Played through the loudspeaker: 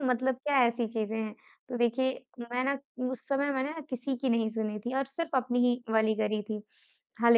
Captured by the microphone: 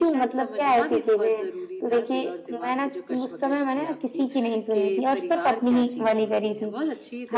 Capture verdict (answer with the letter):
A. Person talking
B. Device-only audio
A